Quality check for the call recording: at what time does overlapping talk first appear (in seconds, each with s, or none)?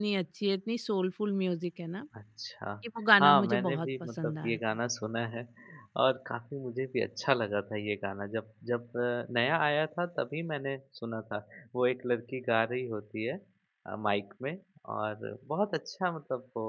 3.2 s